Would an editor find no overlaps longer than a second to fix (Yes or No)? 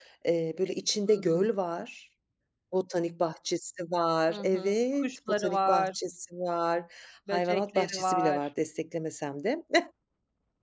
No